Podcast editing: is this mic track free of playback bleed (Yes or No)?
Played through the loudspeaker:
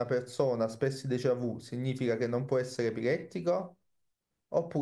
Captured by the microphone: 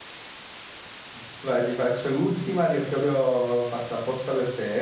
Yes